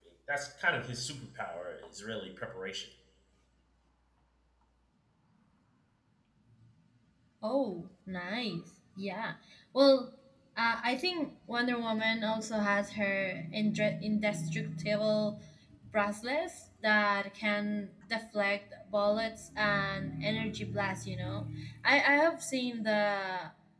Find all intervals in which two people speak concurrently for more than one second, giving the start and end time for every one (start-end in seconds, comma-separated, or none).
none